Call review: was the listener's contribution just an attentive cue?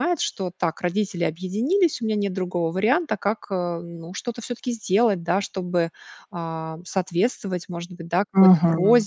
Yes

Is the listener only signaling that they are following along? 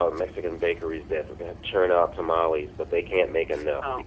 No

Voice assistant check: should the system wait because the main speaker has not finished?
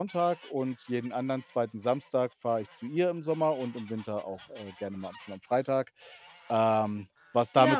No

